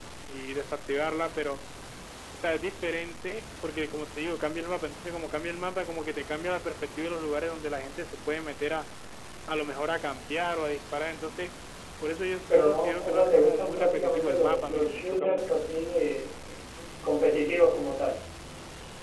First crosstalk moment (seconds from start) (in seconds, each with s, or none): 12.5 s